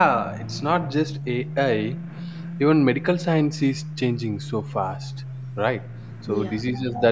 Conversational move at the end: listening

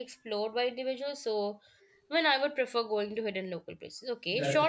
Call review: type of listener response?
listening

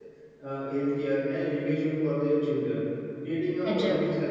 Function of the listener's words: listening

